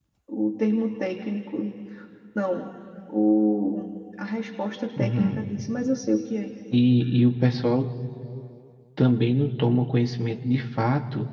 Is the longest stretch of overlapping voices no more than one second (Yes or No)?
Yes